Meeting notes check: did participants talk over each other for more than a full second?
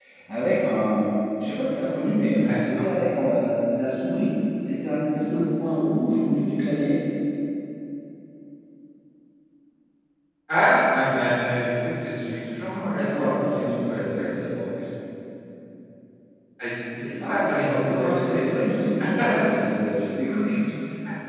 Yes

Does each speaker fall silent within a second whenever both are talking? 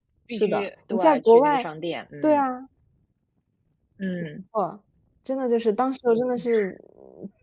No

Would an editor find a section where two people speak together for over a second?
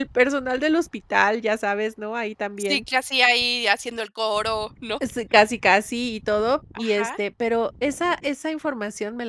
No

